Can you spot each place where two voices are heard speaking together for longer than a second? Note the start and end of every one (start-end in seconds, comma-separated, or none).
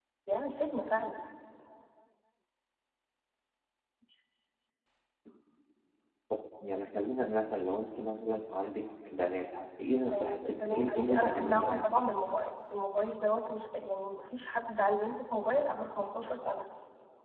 10.1-12.0